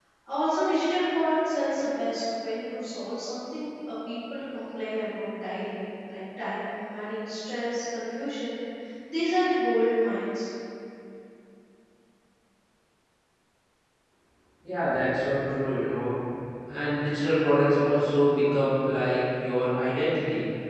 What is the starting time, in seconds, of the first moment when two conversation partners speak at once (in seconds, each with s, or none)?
none